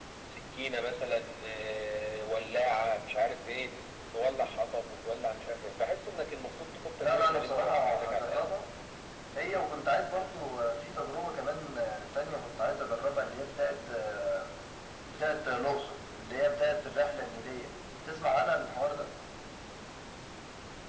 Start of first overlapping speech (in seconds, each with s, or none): 7.0 s